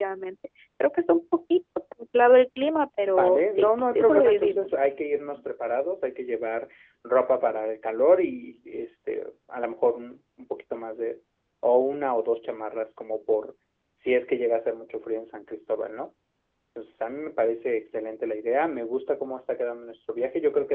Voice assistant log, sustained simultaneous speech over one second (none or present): present